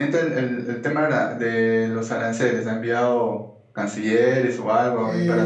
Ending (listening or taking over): taking over